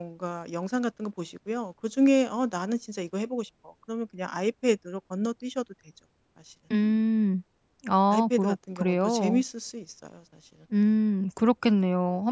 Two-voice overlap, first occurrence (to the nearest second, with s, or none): 8 s